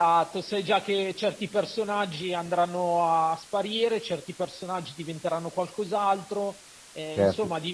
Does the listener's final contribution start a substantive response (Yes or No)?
Yes